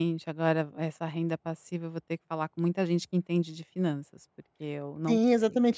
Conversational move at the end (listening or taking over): taking over